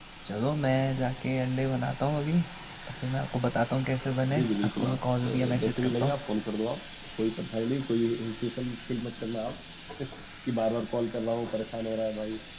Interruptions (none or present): present